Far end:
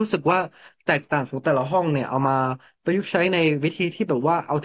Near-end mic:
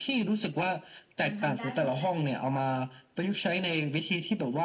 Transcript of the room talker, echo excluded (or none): มันทำได้หมดแหละ